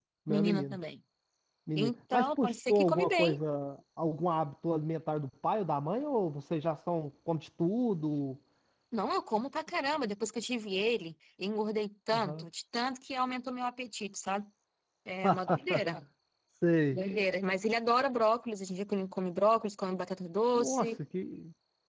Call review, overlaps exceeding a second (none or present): present